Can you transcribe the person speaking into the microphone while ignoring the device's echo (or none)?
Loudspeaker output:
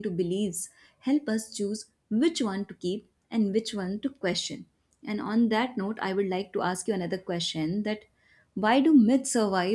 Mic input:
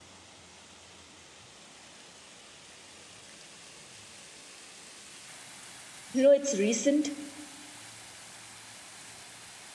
You know, it's recent,